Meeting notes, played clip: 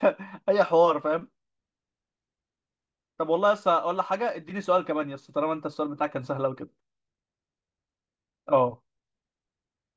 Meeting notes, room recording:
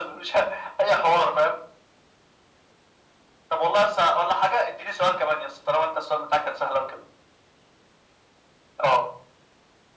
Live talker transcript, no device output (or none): none